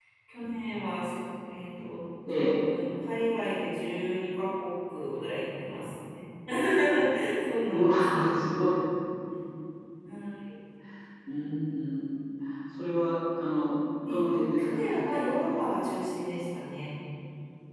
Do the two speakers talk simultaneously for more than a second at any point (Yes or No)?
Yes